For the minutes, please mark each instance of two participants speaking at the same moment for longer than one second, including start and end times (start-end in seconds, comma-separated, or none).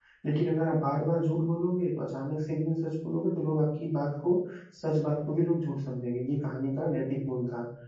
none